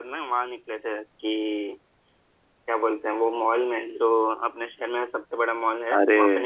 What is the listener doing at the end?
taking over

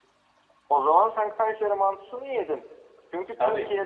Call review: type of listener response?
listening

